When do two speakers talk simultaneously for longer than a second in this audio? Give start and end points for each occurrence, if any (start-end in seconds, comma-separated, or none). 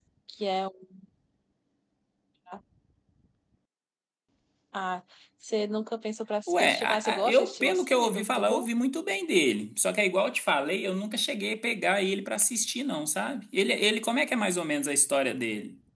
6.5-8.7